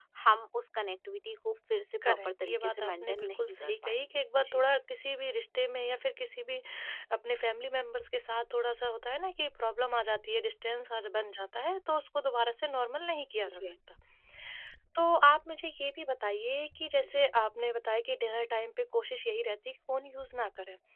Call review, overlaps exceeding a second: present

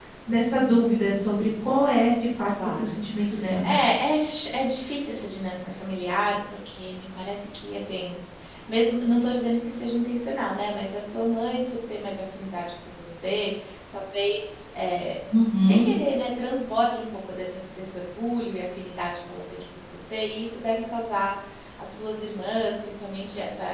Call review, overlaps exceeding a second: none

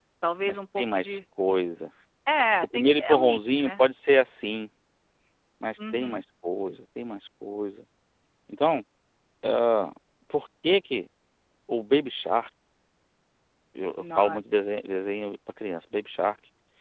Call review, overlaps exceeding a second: present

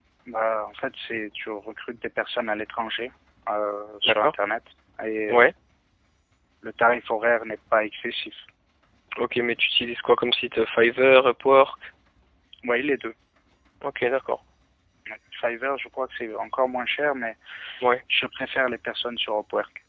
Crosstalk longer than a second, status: none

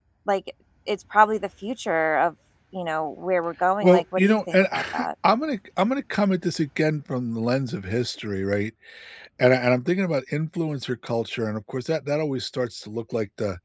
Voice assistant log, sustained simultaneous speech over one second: present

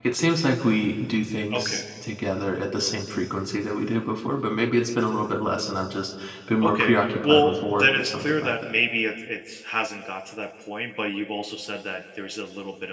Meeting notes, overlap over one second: present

